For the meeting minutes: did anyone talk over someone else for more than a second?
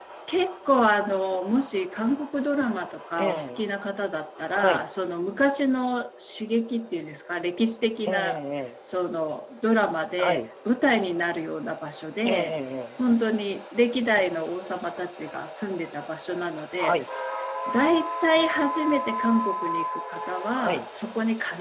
No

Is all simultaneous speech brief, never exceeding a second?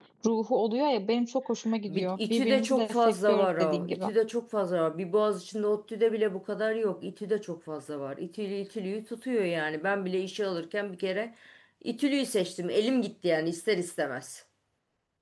No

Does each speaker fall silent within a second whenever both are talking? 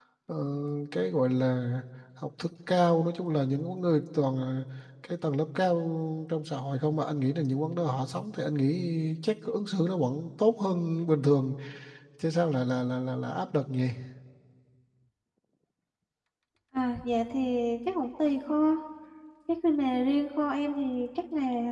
Yes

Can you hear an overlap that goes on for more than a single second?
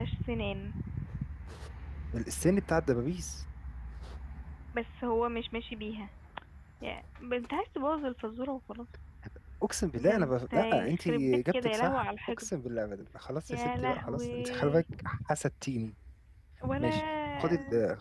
Yes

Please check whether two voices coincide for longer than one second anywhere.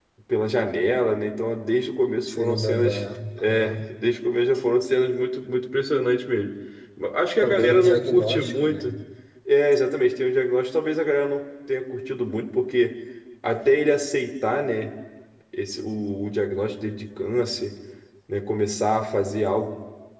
Yes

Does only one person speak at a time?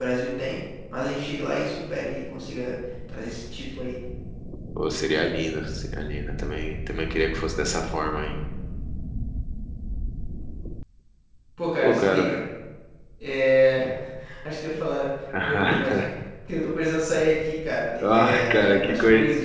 No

